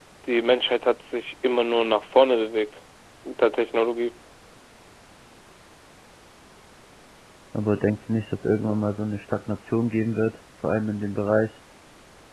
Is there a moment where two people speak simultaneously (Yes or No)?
No